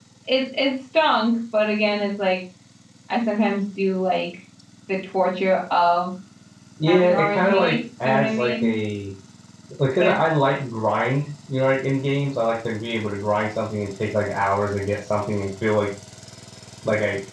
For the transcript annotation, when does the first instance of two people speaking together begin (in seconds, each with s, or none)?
6.9 s